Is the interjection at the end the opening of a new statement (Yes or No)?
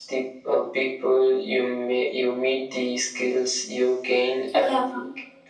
No